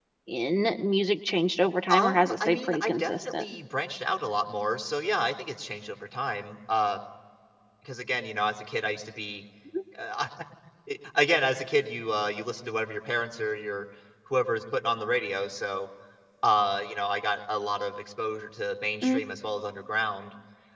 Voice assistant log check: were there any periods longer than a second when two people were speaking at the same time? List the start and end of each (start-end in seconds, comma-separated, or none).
1.9-3.4